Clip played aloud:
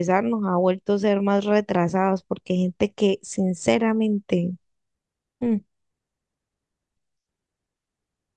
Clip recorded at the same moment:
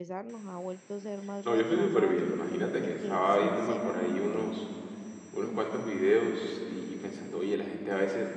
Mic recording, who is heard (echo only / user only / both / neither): both